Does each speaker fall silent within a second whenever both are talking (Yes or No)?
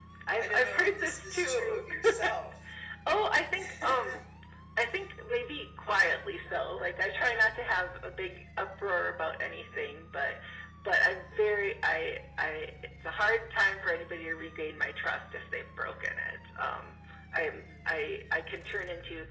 No